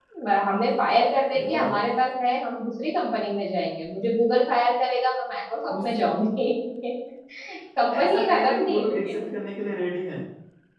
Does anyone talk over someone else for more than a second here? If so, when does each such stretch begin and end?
7.8-9.2

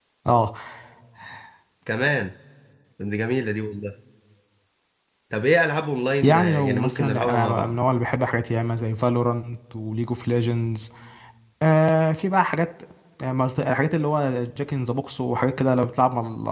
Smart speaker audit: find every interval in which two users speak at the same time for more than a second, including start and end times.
6.2-7.8

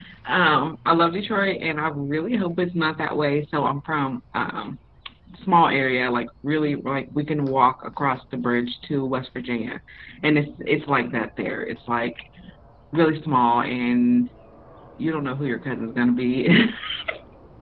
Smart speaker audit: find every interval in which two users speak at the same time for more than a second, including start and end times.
none

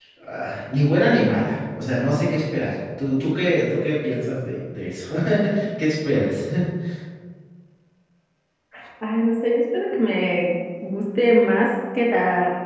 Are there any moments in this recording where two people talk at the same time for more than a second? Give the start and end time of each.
none

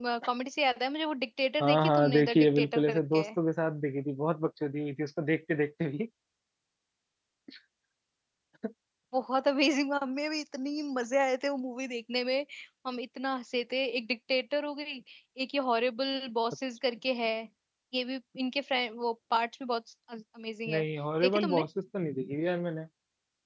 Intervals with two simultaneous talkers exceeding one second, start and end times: 1.6-3.3

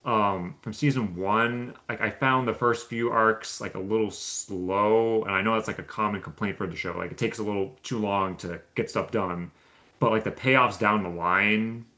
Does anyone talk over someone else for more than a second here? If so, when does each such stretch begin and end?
none

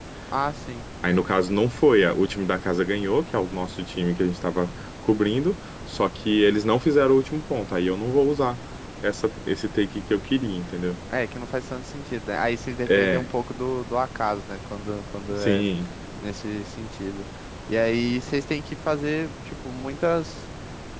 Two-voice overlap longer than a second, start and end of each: none

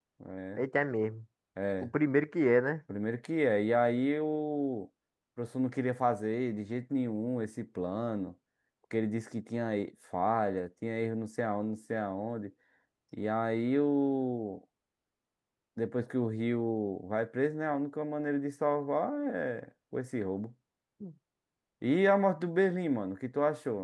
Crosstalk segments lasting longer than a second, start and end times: none

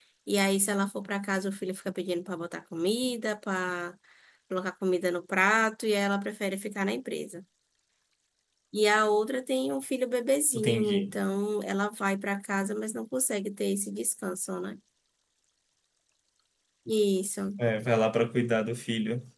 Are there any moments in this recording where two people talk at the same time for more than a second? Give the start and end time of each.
none

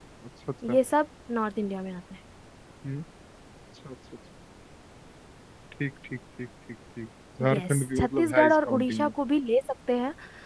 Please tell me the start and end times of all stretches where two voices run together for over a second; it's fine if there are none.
7.5-9.1

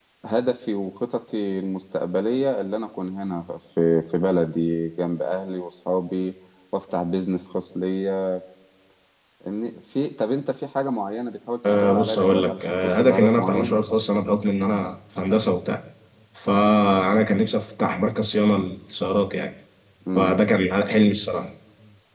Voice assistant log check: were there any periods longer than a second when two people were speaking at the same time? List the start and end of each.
11.6-13.8

